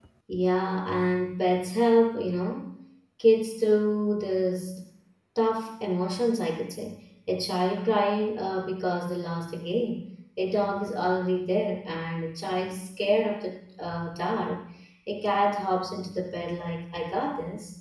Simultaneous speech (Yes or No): No